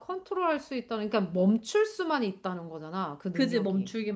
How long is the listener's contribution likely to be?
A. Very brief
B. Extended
B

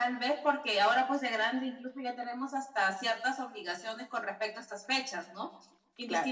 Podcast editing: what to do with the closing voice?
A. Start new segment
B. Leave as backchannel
B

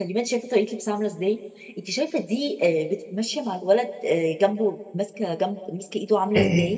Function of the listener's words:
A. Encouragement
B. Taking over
B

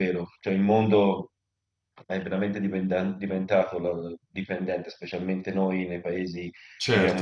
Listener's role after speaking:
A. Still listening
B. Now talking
B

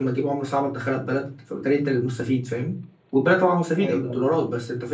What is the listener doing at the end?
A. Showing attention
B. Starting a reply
A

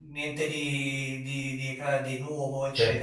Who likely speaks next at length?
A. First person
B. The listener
B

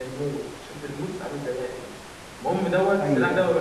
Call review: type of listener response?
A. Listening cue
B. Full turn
A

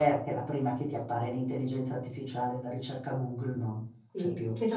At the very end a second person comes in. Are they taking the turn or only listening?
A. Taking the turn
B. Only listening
A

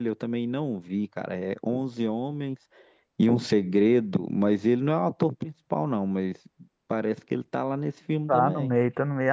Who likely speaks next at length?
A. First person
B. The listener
B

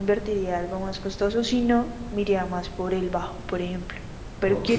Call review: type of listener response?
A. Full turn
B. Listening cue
B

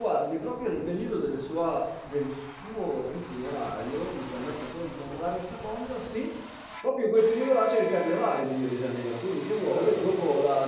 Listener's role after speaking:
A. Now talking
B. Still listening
B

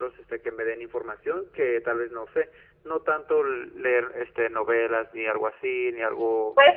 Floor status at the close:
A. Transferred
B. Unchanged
A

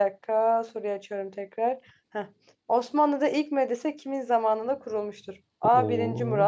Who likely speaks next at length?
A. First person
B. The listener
A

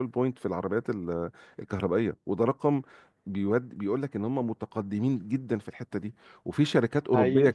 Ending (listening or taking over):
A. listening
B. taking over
A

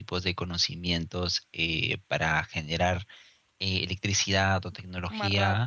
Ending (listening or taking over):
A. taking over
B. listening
B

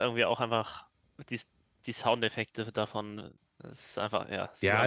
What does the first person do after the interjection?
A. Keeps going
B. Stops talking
B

